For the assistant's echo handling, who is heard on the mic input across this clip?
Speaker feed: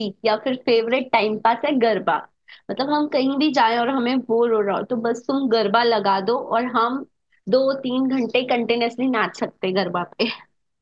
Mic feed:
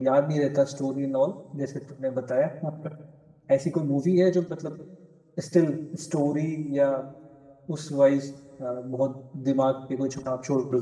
user only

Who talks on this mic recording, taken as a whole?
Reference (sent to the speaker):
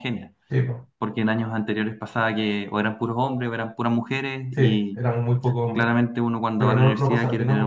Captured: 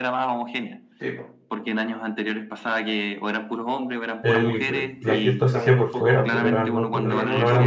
both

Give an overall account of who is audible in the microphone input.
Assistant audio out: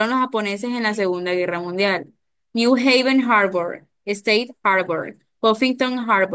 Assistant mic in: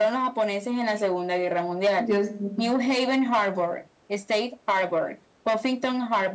both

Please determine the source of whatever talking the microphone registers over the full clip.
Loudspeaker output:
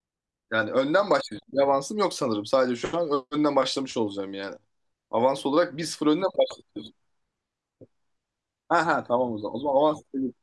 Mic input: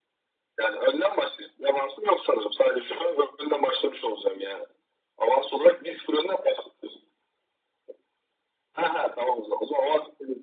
echo only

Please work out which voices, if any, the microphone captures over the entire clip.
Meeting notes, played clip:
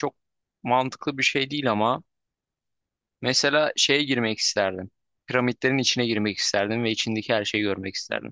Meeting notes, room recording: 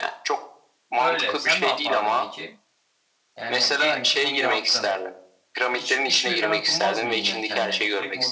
both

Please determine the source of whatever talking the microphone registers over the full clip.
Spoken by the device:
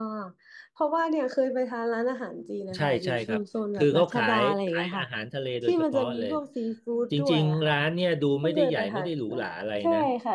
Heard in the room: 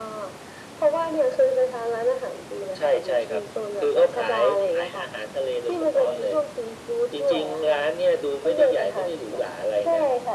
echo only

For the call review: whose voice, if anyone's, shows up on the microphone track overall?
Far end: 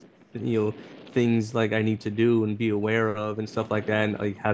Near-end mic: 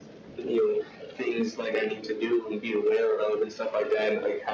echo only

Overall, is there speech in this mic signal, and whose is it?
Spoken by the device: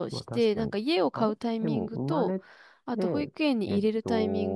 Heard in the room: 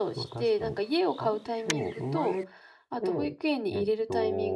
echo only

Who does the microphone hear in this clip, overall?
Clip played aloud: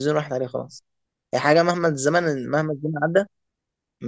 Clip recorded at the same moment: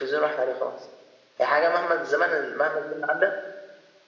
echo only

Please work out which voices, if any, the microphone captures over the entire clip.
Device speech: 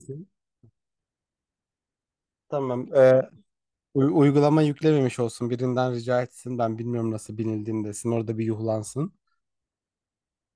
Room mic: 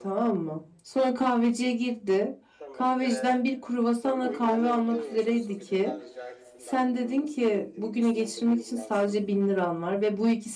both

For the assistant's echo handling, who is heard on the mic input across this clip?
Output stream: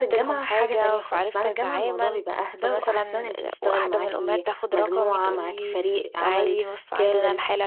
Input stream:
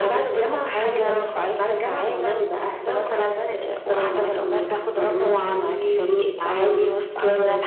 echo only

